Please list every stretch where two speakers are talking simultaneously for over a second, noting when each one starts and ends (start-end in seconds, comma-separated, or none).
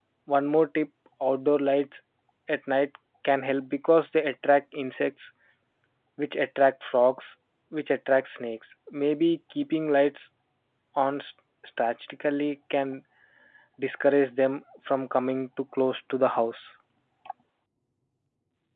none